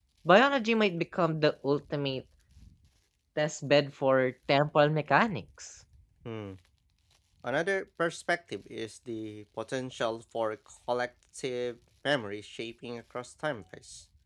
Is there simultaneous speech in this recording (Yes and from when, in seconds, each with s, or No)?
No